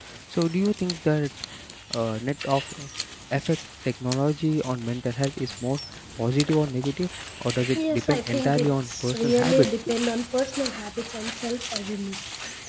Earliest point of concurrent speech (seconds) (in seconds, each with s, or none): 7.8 s